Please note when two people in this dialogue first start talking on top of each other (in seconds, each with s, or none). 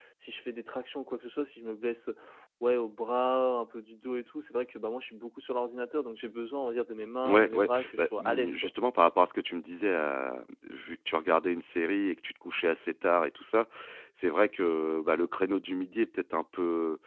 7.2 s